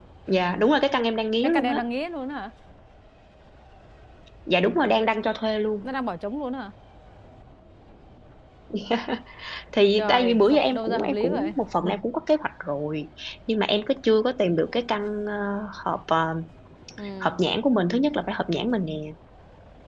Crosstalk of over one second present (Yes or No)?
Yes